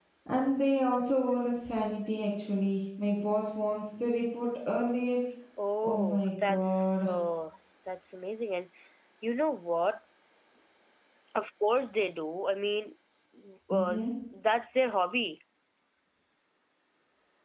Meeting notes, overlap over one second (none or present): present